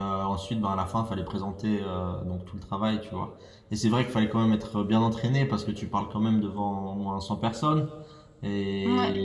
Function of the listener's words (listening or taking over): listening